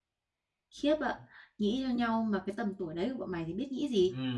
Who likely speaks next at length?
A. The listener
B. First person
A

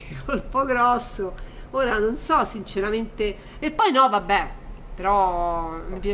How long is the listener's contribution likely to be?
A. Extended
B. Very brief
B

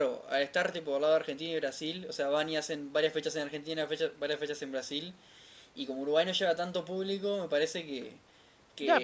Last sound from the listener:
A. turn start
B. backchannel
A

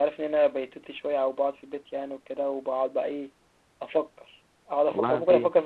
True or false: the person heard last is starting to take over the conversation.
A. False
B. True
A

